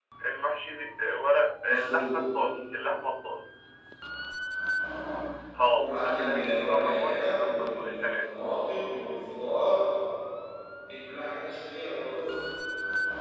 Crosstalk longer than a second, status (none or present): present